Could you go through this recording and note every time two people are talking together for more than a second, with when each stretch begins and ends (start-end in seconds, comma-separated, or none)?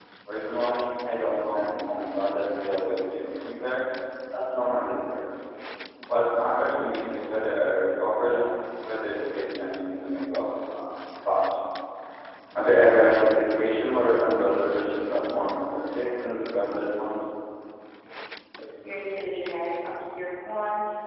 none